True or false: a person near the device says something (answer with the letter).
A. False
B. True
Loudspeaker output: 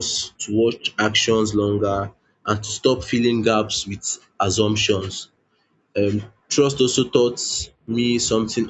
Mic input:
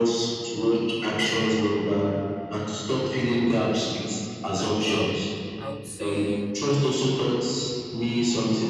B